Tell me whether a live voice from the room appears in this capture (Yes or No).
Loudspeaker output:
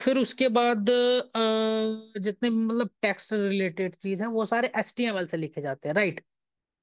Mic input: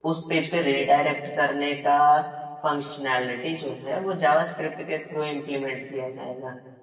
Yes